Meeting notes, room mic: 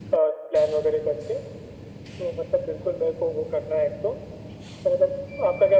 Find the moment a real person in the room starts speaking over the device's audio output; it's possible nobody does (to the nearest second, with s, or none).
none